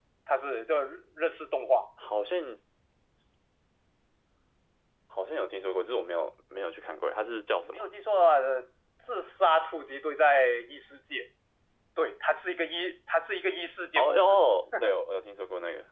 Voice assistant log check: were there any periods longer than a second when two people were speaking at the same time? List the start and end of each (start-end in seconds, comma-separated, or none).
none